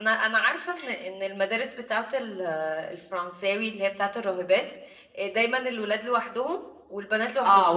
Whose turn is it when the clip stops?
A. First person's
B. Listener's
B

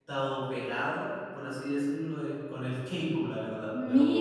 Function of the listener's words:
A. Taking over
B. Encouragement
A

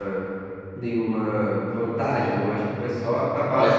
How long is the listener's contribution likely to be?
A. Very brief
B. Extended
A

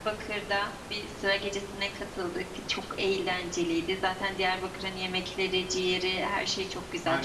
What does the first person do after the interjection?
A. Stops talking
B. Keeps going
A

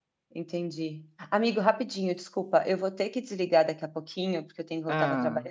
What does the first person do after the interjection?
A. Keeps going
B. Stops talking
A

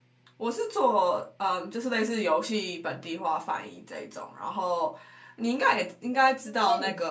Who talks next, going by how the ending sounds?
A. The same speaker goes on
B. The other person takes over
B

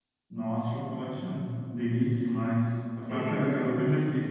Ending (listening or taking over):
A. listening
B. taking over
A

